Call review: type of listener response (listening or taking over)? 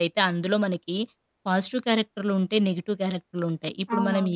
listening